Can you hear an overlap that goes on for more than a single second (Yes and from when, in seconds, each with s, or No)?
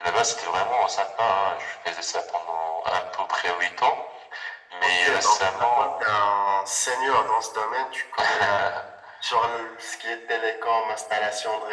Yes, from 4.8 s